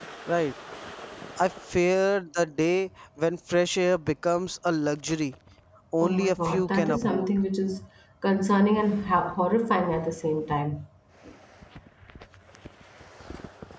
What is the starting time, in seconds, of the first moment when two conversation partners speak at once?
6.0 s

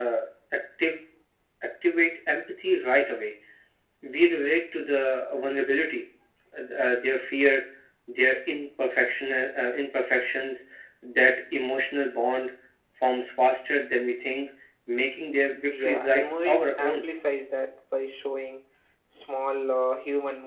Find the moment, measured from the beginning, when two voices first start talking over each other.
15.7 s

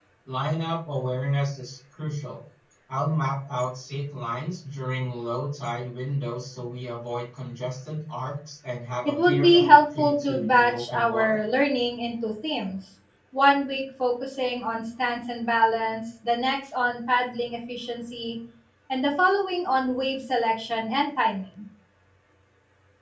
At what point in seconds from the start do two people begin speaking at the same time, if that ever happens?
9.0 s

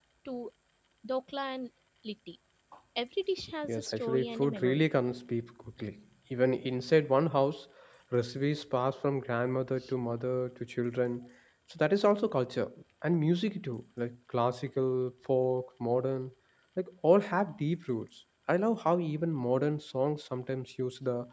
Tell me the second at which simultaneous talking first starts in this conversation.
3.6 s

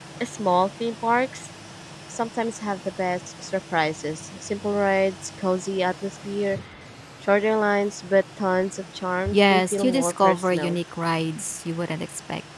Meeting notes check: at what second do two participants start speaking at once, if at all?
9.3 s

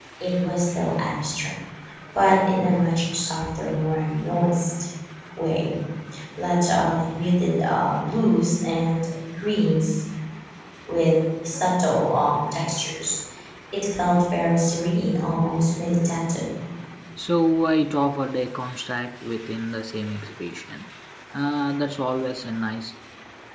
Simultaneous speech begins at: none

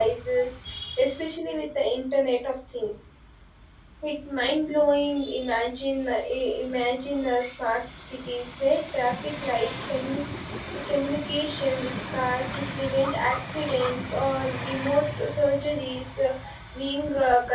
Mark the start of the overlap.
none

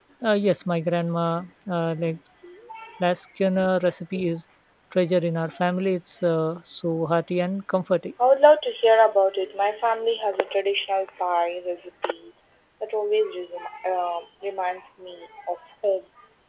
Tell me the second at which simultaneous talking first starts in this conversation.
none

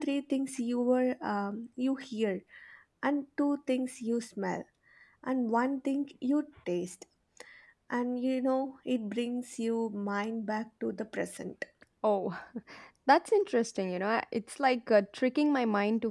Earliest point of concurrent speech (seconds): none

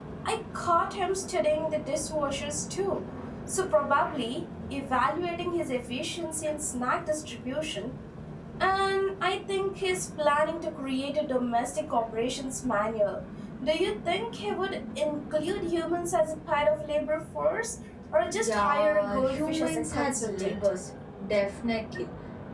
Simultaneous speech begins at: 18.3 s

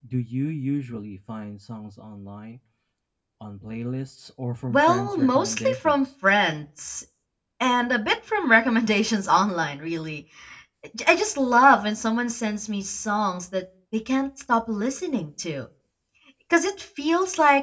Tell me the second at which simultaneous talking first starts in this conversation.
4.7 s

